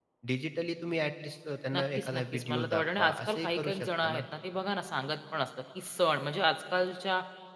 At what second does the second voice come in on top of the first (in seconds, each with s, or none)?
1.7 s